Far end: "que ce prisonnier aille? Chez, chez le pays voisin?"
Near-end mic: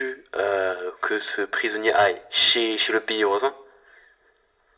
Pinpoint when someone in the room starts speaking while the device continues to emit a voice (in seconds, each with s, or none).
none